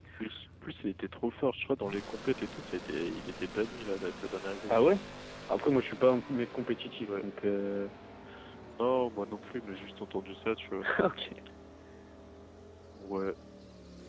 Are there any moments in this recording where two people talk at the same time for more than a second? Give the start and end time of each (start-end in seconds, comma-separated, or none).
none